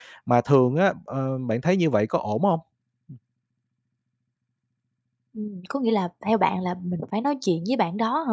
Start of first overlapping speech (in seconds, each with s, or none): none